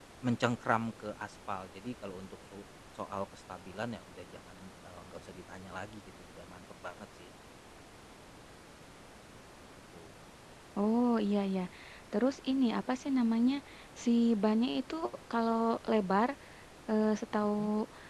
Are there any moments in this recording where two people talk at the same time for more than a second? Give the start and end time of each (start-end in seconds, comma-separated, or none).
none